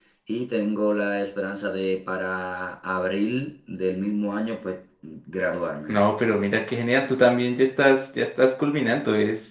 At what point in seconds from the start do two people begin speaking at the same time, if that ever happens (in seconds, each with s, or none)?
none